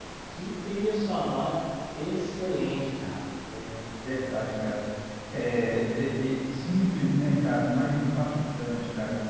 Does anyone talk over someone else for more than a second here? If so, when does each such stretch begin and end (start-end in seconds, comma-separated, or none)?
none